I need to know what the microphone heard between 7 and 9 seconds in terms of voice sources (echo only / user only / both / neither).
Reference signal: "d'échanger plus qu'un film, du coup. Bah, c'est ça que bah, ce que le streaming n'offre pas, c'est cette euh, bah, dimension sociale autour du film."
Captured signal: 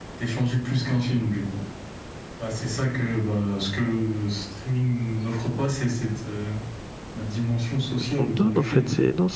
both